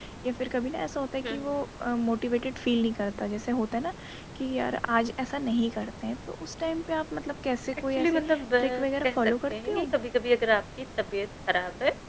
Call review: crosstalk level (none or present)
present